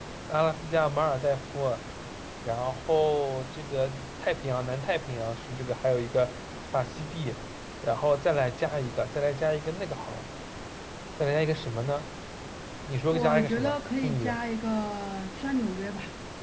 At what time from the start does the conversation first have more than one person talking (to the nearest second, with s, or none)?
13 s